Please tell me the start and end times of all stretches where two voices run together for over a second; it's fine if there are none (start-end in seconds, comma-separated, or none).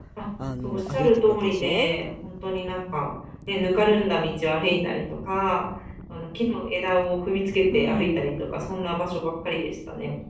0.6-1.9